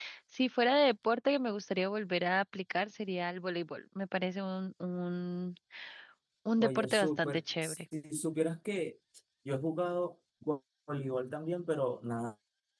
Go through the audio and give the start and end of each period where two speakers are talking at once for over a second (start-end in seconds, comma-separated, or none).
6.6-7.8